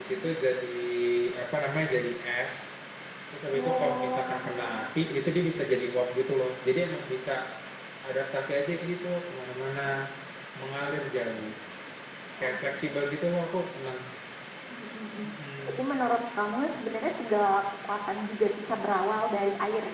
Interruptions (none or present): present